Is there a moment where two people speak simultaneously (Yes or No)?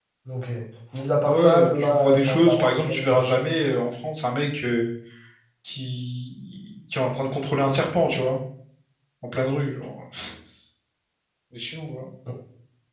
Yes